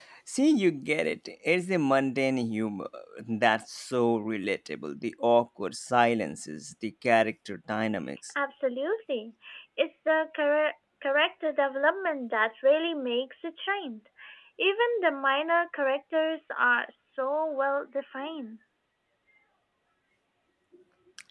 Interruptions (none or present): none